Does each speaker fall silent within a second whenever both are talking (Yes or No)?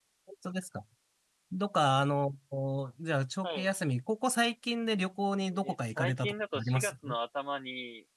No